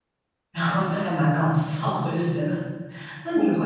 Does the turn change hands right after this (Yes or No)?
No